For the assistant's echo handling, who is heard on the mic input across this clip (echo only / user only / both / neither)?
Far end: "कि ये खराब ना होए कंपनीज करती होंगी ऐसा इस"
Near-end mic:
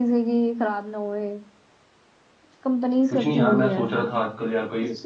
both